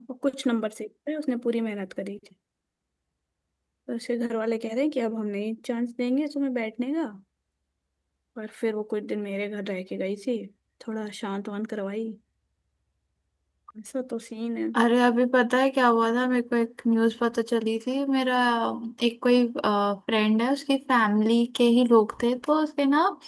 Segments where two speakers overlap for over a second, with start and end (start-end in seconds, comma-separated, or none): none